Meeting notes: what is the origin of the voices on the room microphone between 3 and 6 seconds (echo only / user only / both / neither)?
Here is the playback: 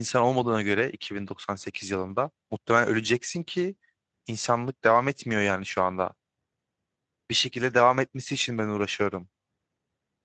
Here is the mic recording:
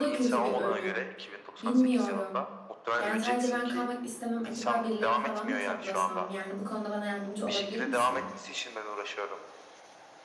both